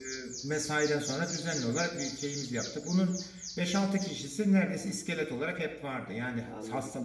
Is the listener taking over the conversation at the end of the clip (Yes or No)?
No